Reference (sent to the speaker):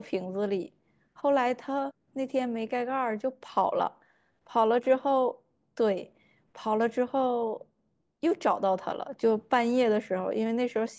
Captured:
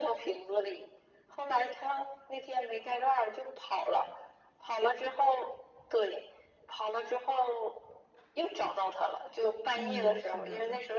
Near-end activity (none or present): present